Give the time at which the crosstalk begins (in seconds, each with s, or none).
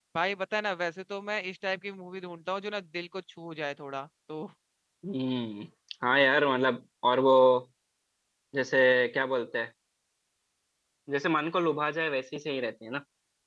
none